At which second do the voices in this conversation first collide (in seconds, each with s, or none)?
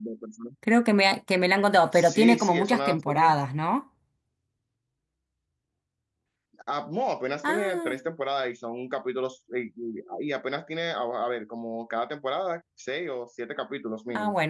1.9 s